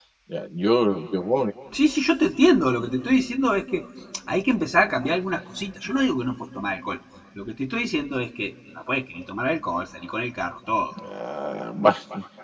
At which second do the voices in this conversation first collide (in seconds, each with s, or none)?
none